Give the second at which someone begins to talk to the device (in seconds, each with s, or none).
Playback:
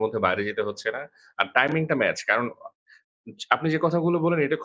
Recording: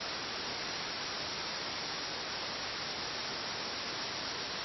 none